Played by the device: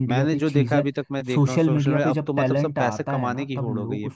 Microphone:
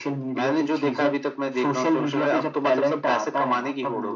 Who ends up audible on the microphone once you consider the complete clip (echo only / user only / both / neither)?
echo only